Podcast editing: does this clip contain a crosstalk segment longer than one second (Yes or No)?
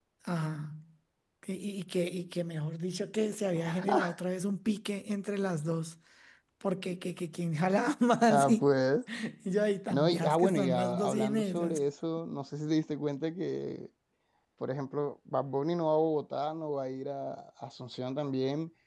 Yes